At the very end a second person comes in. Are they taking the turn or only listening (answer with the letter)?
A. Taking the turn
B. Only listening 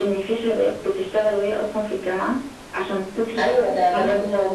A